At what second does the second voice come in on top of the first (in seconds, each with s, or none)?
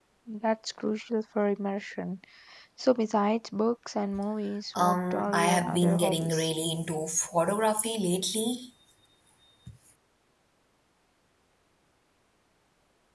4.8 s